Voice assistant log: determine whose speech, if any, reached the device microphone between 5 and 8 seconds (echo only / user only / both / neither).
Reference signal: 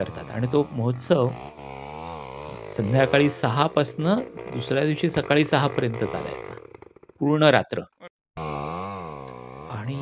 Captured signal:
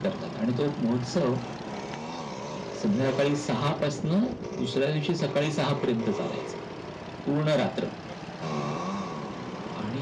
echo only